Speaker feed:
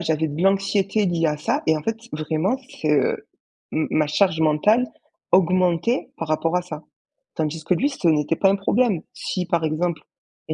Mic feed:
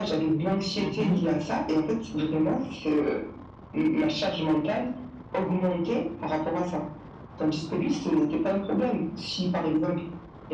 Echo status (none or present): present